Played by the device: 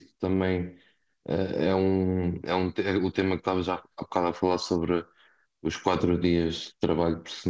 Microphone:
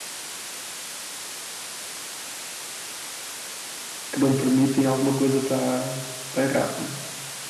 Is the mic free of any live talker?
No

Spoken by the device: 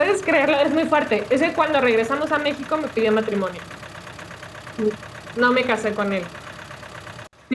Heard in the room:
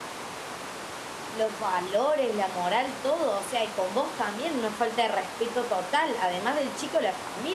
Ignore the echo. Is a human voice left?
Yes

